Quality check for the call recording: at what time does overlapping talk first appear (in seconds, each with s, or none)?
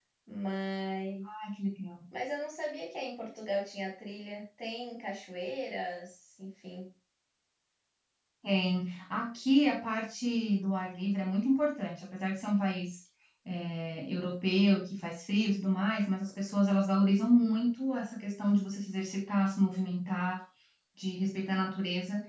none